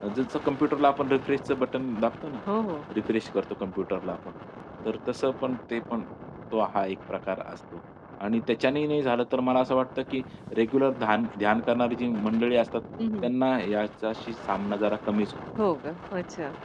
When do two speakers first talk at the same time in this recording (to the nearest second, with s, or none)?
none